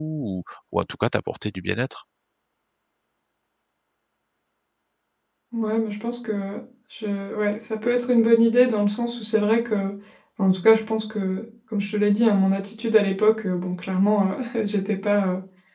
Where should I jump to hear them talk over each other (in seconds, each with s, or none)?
none